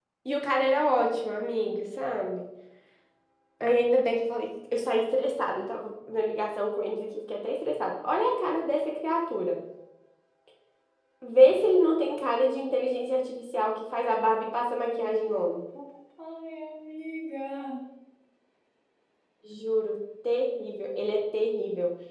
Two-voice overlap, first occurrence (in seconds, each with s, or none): none